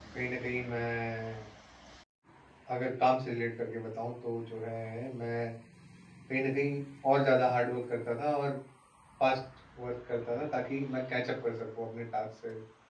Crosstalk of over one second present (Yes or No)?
No